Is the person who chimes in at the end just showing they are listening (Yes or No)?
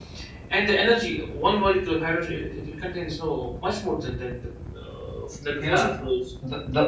No